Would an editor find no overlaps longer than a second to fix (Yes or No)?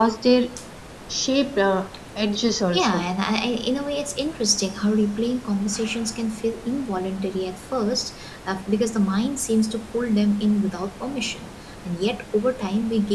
Yes